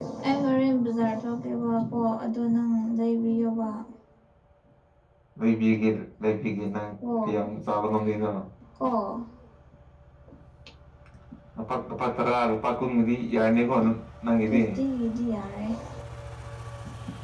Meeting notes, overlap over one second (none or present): none